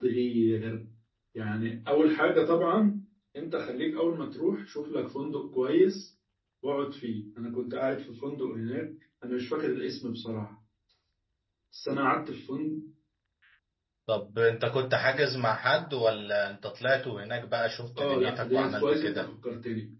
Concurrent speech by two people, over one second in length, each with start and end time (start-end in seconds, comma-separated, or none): 18.0-19.2